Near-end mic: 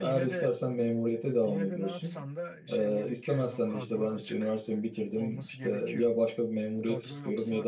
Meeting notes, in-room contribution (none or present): present